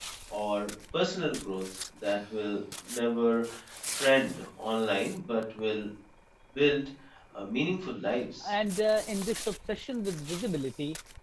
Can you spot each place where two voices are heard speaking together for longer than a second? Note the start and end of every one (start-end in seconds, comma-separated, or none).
none